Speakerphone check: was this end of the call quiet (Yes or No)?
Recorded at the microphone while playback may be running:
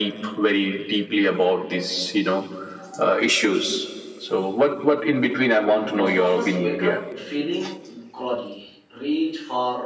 No